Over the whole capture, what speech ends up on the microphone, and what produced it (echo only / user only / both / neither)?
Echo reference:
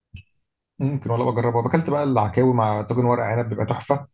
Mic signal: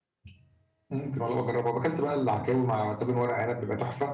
echo only